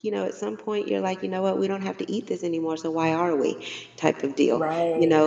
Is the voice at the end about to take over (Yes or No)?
No